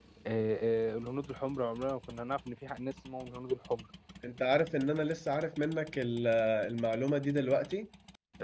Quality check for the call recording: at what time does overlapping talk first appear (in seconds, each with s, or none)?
none